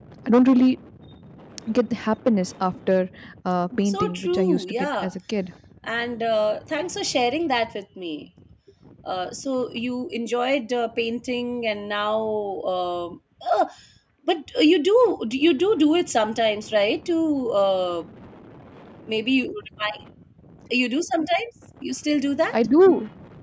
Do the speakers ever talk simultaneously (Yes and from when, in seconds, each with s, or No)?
Yes, from 3.8 s